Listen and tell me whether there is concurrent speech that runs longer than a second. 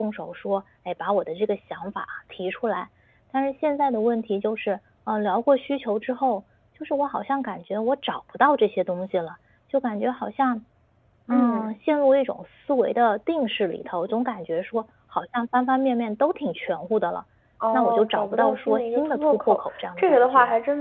Yes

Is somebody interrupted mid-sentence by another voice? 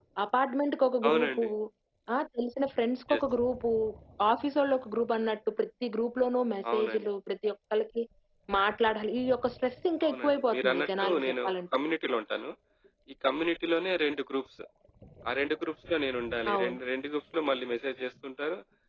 Yes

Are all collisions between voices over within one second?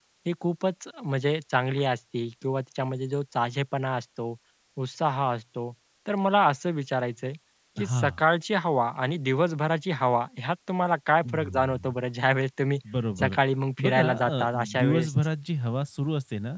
No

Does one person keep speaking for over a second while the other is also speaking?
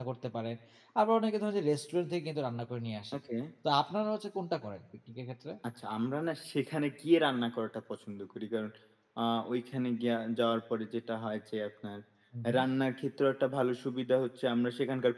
No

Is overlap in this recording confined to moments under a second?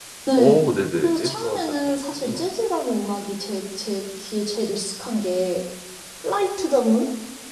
No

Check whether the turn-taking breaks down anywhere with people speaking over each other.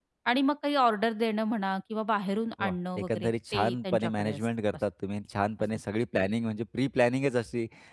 Yes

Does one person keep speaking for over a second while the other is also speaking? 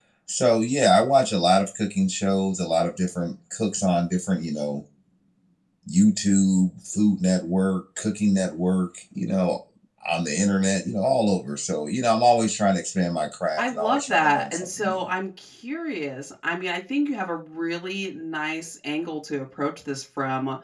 Yes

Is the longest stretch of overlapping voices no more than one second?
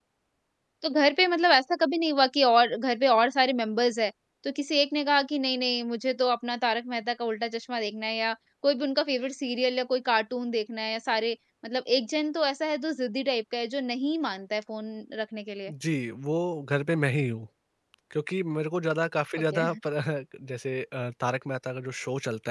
Yes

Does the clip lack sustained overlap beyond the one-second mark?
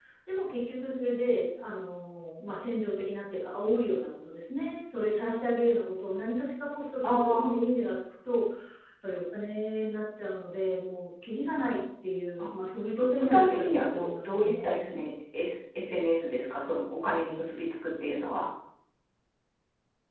No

